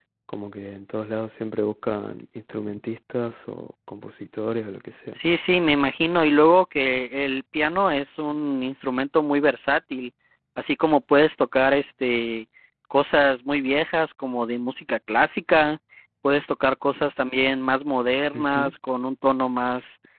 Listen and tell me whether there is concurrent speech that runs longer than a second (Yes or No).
No